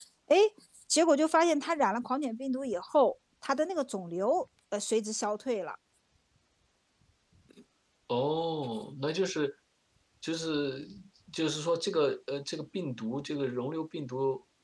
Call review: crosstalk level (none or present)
none